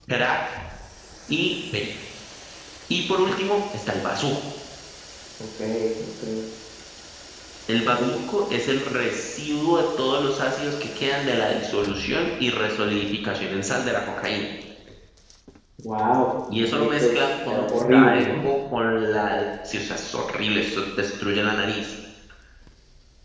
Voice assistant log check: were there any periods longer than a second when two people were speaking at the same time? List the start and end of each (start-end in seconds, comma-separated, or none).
16.7-18.5